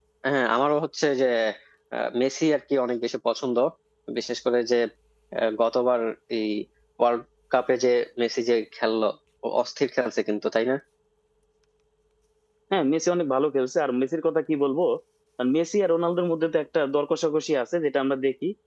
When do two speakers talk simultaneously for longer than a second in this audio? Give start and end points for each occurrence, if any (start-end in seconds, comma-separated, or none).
none